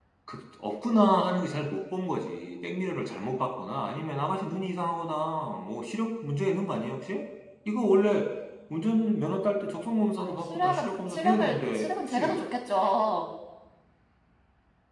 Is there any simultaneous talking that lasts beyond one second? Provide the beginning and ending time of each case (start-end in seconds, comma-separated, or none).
10.2-12.4